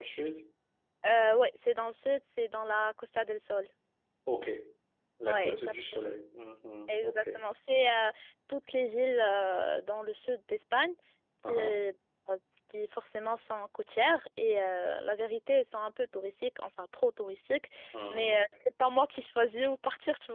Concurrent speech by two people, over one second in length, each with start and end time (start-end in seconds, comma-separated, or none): none